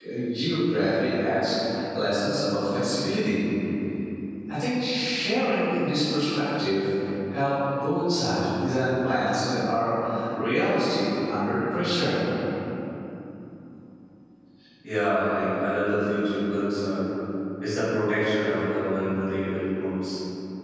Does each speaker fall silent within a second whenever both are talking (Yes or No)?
Yes